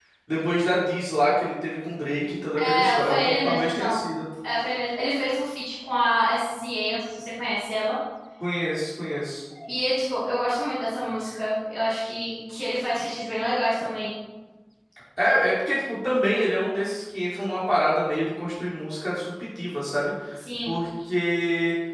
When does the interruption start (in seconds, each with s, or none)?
2.5 s